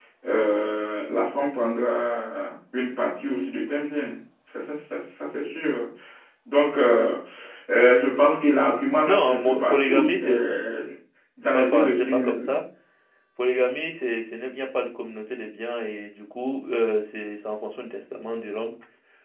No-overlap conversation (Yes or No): No